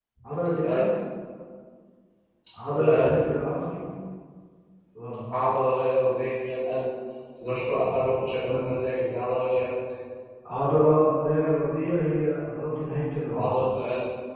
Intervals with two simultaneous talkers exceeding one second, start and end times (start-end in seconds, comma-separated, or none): none